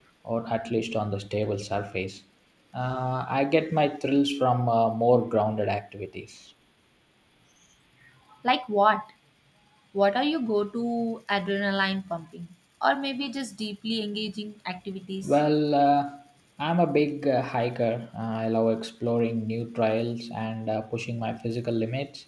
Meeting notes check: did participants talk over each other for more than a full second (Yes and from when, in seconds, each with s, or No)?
No